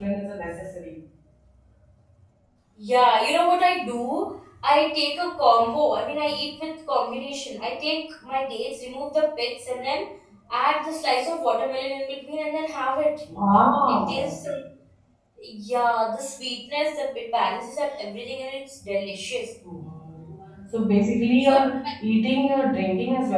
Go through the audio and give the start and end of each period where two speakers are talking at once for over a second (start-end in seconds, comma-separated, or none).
none